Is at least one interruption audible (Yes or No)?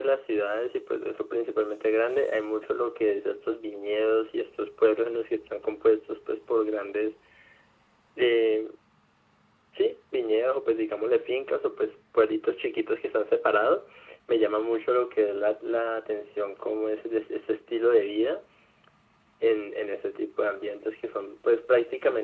No